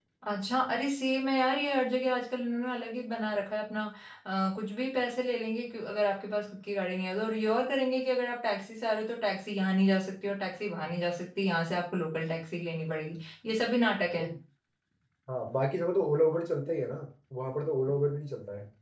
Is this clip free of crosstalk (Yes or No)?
Yes